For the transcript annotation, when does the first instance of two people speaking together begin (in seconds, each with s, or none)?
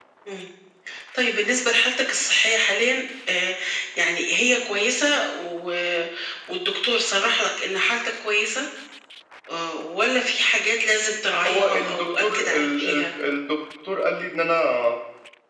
11.4 s